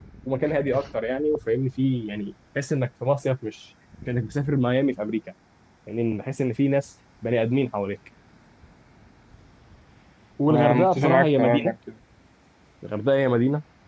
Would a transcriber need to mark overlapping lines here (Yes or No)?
Yes